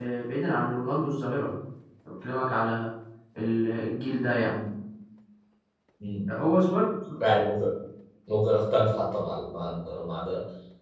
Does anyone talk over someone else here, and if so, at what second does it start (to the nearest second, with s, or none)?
none